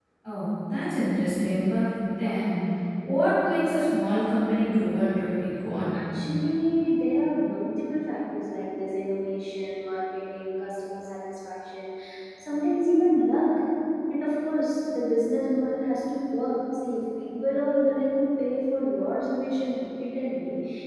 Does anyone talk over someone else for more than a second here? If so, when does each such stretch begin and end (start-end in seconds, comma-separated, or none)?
none